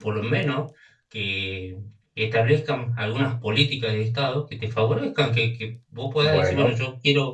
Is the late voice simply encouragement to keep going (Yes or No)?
Yes